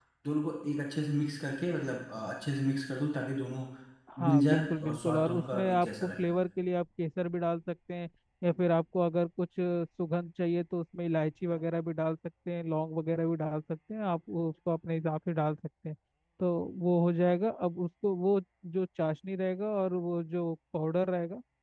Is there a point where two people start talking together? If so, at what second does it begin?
4.2 s

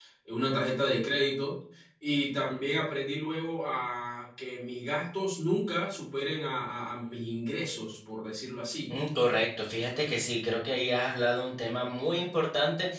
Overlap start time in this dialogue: none

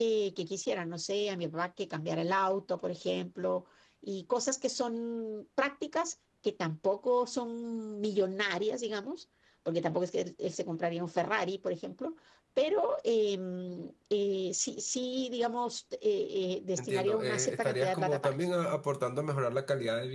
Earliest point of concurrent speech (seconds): 16.8 s

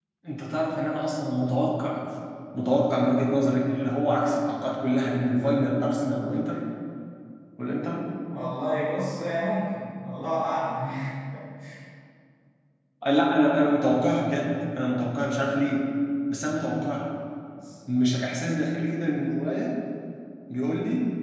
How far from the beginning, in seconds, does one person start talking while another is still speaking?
none

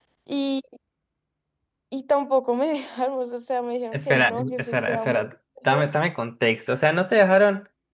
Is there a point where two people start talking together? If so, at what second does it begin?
3.9 s

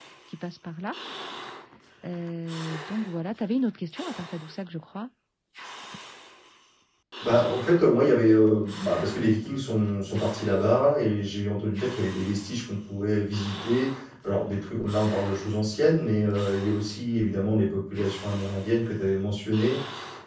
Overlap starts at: none

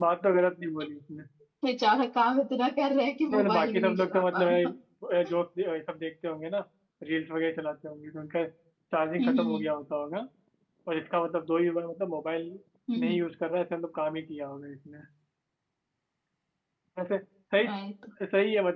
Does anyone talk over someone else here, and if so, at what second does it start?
3.3 s

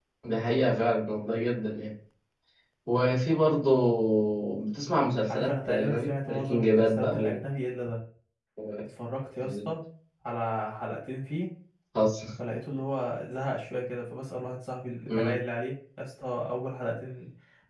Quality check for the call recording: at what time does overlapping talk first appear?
5.3 s

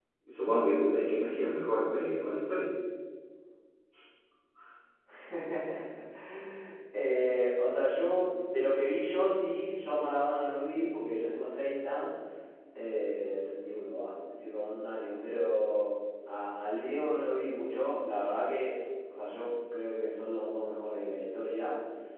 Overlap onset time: none

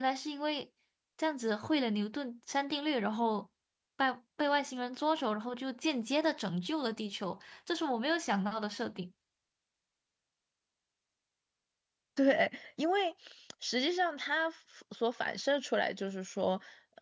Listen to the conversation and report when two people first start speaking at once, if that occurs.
none

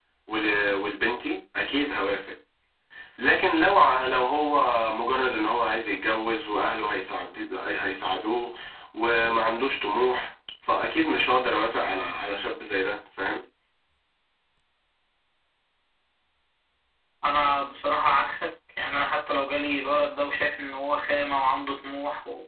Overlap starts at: none

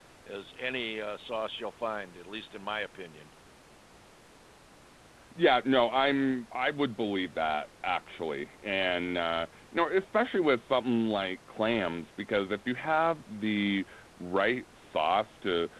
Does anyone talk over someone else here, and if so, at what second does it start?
none

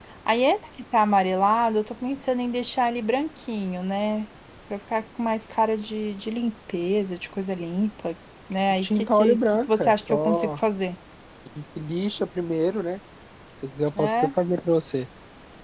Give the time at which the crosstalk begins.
8.8 s

